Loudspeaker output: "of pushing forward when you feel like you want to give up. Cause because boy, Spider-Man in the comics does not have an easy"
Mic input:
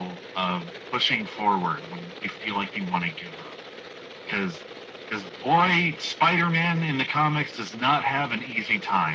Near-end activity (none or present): none